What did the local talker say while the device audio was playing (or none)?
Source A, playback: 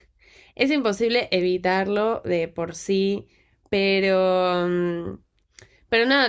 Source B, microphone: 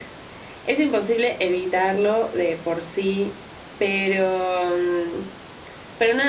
none